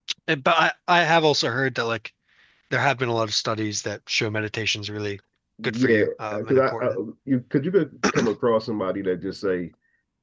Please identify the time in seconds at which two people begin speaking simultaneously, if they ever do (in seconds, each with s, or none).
5.6 s